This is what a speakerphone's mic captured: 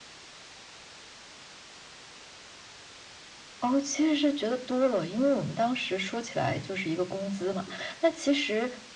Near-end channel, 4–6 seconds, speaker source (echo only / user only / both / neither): echo only